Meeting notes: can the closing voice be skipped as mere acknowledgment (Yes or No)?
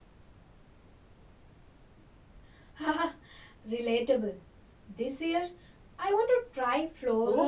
No